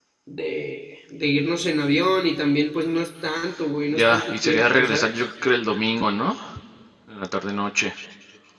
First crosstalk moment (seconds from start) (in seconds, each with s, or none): 3.9 s